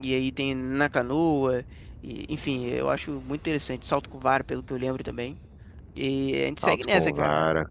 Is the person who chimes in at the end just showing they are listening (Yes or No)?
No